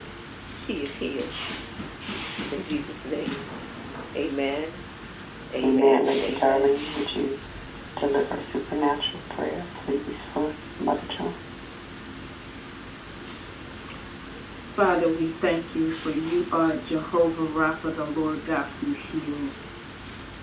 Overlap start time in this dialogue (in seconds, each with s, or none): 5.6 s